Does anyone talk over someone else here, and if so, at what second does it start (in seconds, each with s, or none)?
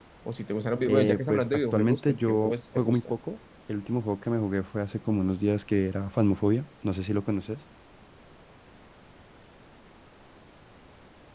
0.9 s